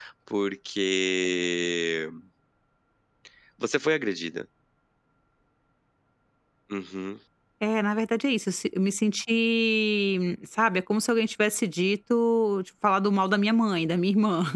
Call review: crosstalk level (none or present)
none